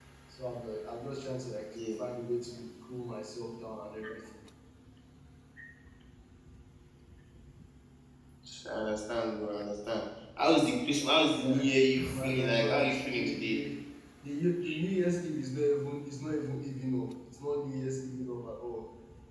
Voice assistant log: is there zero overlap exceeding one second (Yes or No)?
No